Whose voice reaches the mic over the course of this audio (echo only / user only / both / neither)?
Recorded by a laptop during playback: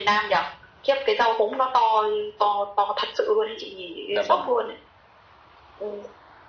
both